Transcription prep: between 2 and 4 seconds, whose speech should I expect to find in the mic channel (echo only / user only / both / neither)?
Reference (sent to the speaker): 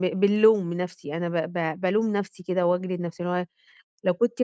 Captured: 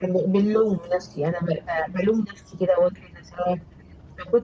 echo only